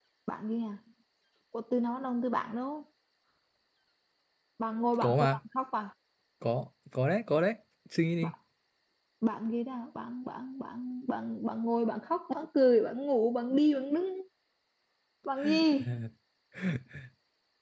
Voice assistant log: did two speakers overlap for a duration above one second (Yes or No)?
No